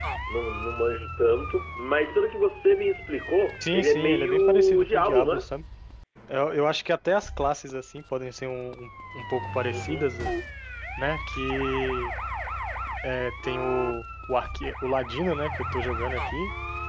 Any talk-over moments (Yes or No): Yes